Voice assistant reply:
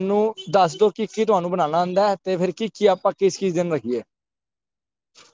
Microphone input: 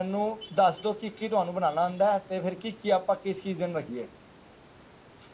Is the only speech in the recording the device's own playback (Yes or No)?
Yes